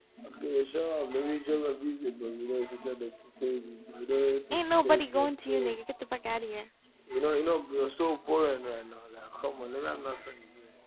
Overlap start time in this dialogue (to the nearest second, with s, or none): 5 s